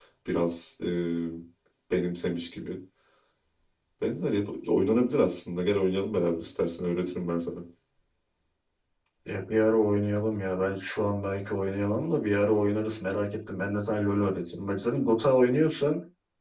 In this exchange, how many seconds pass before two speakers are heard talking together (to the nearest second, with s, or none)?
none